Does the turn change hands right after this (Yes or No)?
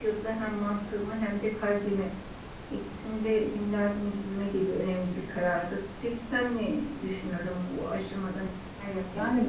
Yes